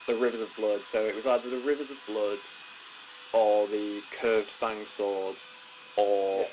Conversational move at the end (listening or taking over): listening